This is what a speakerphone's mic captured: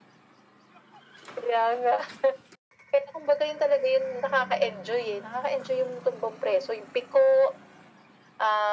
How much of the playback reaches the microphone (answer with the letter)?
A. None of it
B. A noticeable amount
B